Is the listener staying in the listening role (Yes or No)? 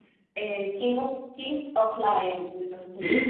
No